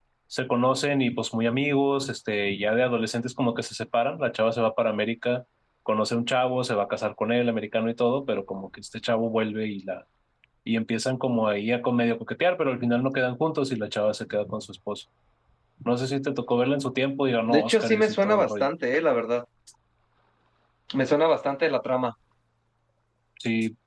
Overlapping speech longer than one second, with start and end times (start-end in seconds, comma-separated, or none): 17.5-18.7